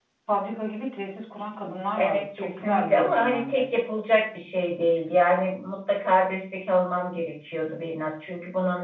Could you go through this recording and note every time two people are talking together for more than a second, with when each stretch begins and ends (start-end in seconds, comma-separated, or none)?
1.9-3.6